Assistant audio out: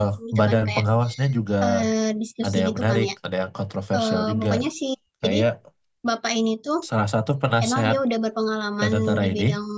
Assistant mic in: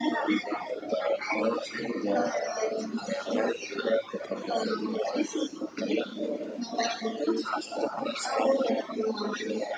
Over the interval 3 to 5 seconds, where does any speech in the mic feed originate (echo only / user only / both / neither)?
echo only